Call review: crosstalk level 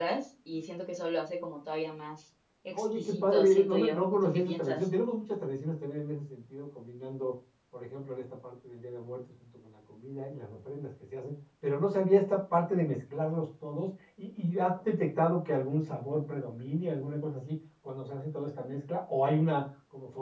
present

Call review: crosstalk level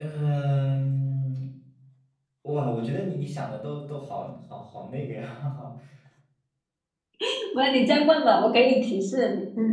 none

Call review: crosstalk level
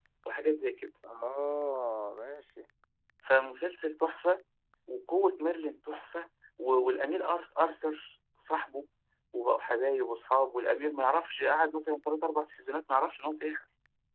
none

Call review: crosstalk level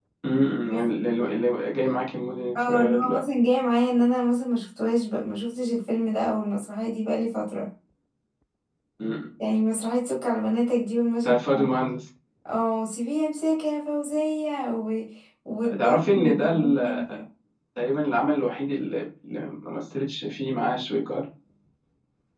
present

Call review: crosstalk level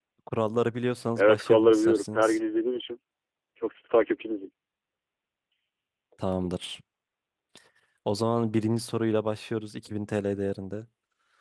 present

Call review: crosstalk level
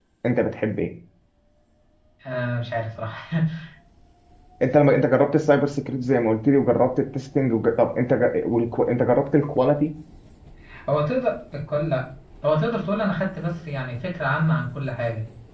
none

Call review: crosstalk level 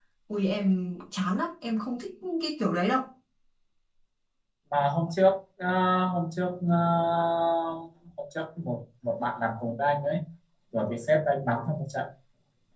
none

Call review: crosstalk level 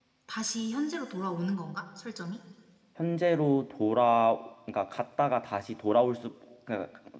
none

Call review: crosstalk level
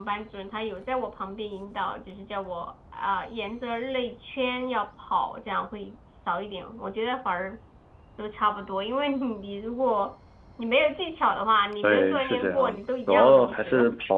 present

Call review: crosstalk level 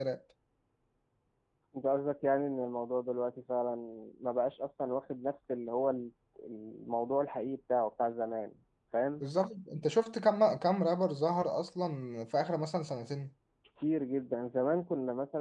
none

